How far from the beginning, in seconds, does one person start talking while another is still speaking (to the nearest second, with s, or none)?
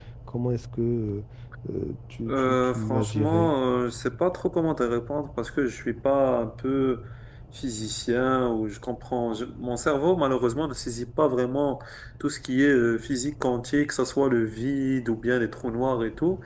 2 s